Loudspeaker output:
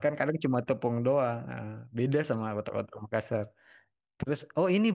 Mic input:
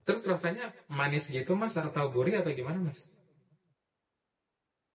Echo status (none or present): none